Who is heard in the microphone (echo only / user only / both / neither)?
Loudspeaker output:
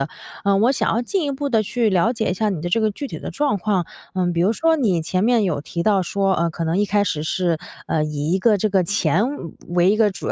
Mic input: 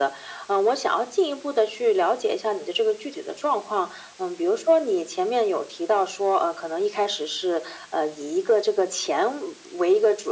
echo only